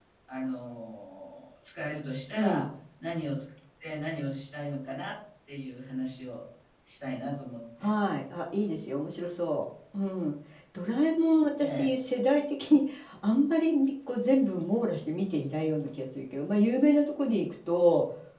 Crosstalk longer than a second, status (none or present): none